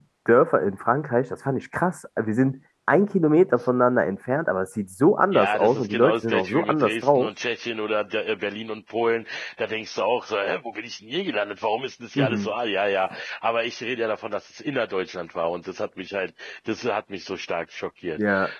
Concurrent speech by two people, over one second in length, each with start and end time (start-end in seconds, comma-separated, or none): 5.3-7.3